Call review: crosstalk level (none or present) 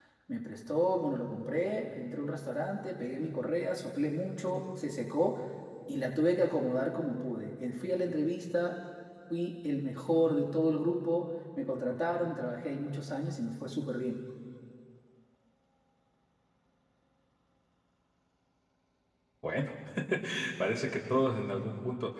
none